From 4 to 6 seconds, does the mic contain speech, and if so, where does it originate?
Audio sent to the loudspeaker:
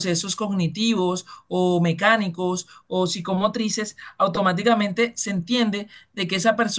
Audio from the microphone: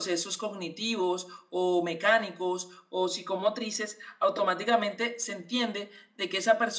echo only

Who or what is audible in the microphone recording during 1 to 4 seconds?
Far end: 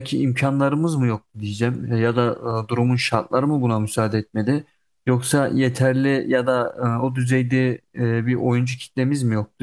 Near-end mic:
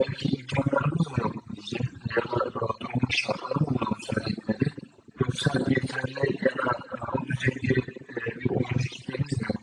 echo only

